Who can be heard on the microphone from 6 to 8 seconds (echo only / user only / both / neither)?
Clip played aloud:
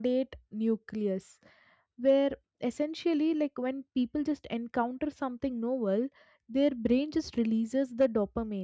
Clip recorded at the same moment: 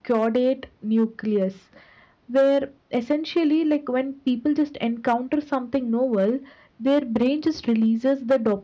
echo only